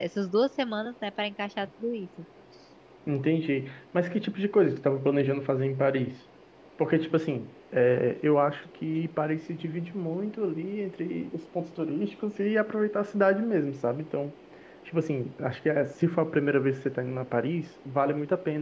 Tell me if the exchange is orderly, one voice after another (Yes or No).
Yes